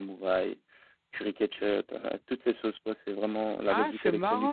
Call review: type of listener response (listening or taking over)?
taking over